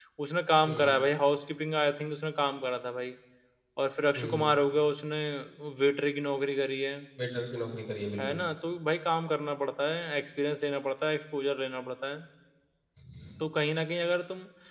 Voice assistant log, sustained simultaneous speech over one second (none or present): none